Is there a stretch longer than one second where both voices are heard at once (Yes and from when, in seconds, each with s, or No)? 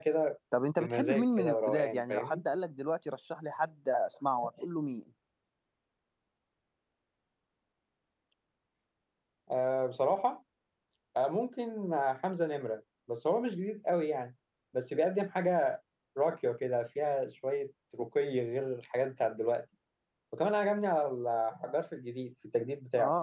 Yes, from 0.8 s